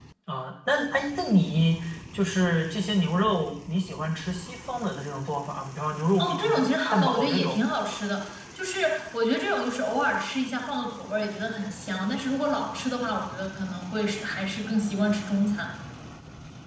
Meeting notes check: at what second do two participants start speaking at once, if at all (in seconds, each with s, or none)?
6.2 s